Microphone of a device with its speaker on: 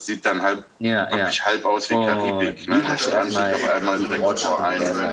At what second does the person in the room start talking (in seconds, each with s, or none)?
2.7 s